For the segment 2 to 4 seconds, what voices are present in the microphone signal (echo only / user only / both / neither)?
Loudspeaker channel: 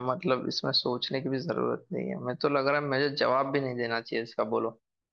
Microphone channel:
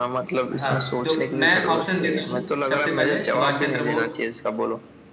both